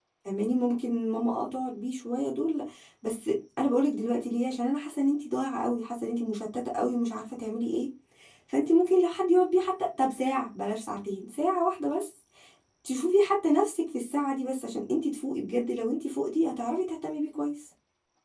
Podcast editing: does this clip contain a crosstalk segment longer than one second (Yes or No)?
No